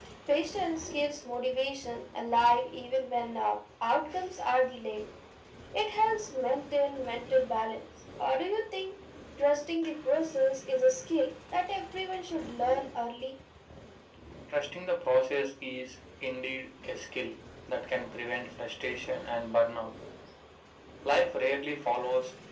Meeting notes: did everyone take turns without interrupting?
Yes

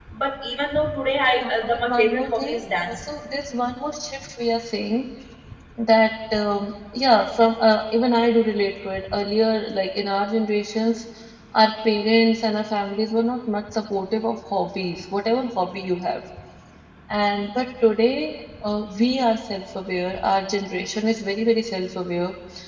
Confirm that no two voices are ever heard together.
No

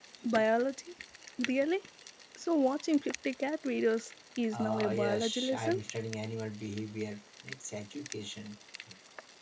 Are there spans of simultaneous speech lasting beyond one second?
Yes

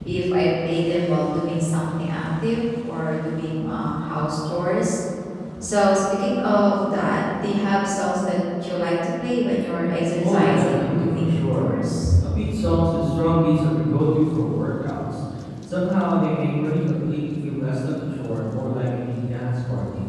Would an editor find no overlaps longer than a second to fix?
No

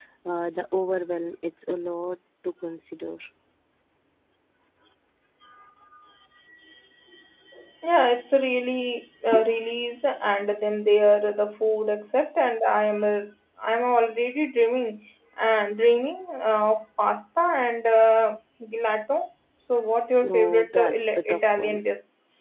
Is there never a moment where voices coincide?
No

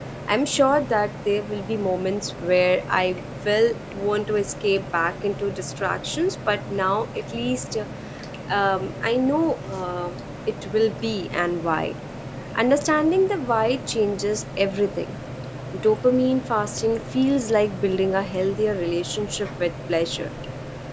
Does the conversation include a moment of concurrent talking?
No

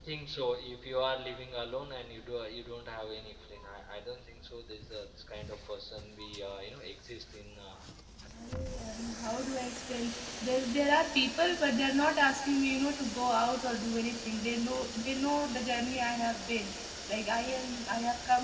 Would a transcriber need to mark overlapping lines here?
No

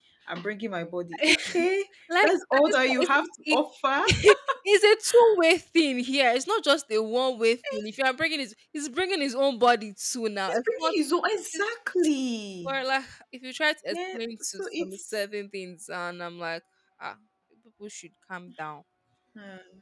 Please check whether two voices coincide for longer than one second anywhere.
Yes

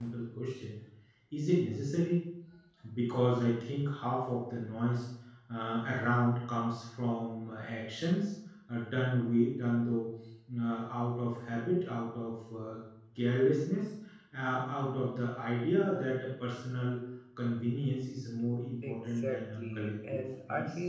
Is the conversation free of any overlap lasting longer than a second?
No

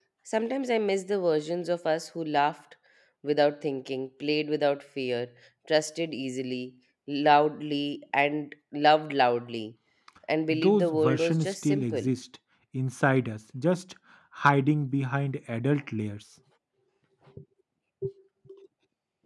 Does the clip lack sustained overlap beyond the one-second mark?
No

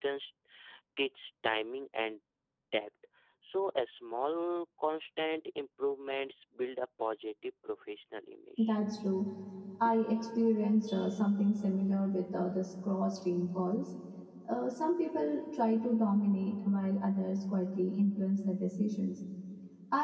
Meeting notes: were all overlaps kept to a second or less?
Yes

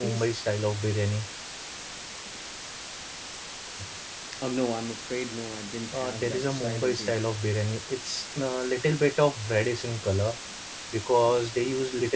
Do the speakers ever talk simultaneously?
Yes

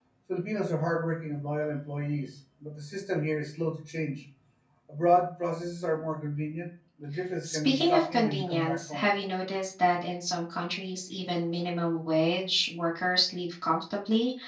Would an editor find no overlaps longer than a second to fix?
No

